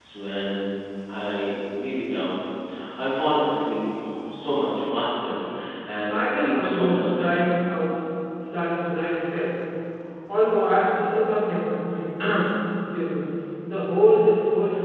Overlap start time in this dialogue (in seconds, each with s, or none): 6.1 s